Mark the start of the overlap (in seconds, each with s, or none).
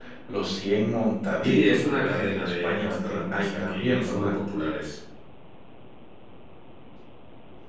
1.4 s